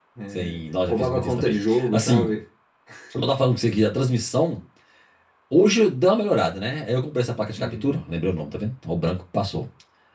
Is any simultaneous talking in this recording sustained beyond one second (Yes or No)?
Yes